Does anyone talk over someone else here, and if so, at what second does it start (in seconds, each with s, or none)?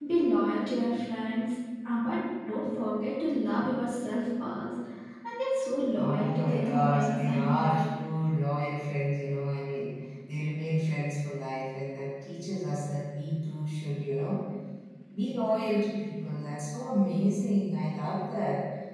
6.0 s